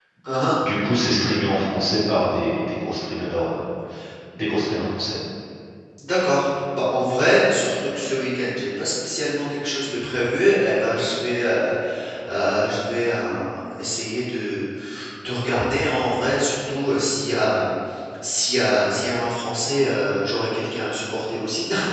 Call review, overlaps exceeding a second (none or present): none